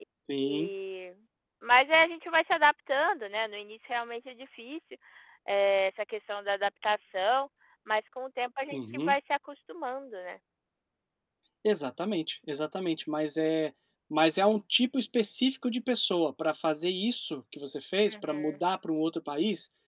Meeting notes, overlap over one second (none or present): none